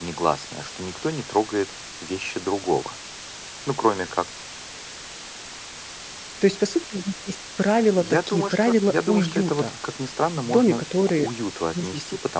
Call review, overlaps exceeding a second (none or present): present